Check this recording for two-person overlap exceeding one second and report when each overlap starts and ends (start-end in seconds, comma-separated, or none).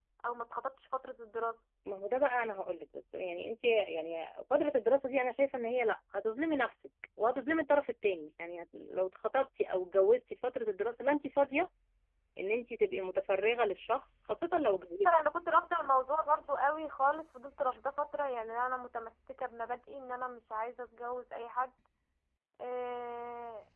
none